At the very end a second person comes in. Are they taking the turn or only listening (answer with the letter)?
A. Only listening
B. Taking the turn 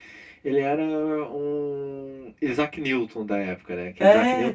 A